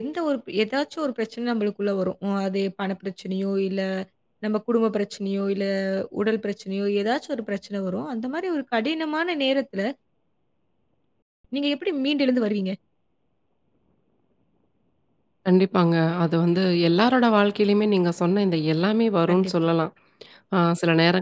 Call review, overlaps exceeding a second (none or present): none